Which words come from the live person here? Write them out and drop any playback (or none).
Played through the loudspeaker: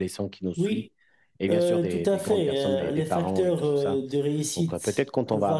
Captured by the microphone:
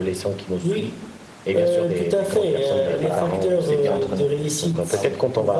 et voilà, et pour s'aider entre nous. Ah oui,